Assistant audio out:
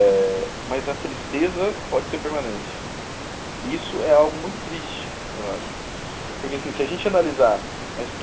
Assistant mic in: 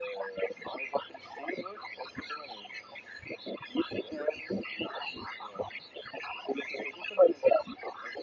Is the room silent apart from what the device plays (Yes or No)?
Yes